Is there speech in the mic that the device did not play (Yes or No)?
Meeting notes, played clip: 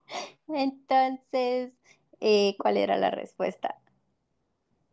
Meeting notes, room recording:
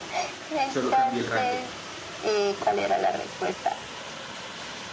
Yes